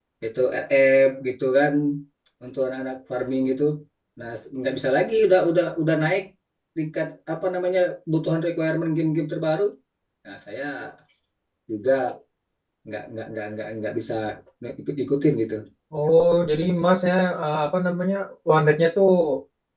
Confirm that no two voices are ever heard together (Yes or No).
Yes